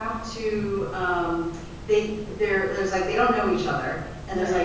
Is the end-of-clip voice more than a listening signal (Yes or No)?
No